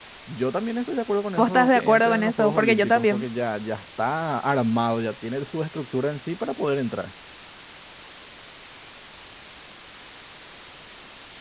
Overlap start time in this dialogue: 1 s

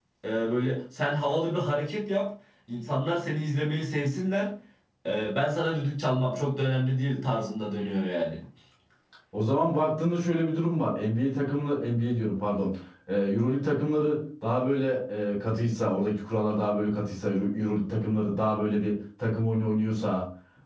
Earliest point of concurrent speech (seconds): none

